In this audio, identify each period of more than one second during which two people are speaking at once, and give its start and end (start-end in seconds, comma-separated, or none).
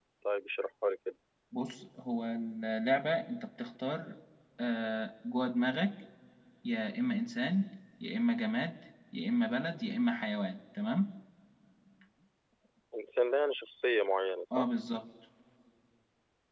none